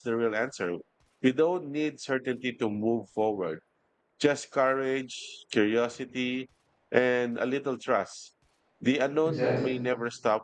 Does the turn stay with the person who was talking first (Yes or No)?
Yes